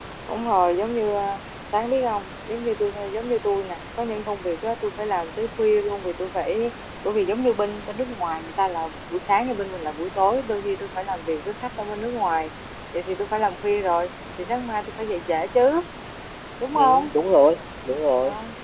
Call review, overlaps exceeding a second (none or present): none